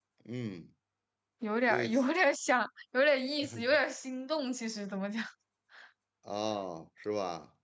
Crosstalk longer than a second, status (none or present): none